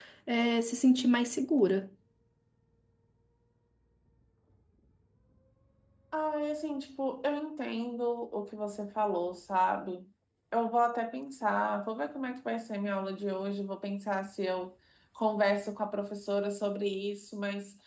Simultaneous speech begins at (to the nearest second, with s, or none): none